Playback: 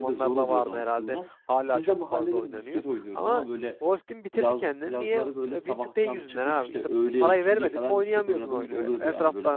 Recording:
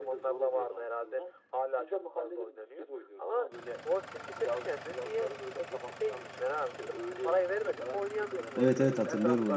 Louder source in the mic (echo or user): user